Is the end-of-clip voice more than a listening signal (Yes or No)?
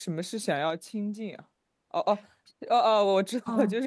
Yes